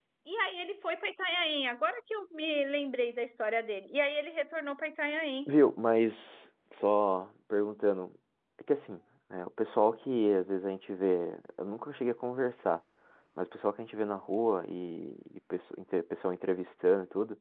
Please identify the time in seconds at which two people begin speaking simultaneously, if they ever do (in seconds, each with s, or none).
none